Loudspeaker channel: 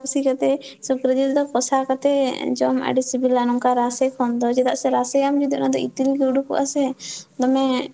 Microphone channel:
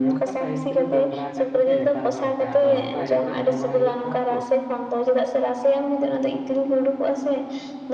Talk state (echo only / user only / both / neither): both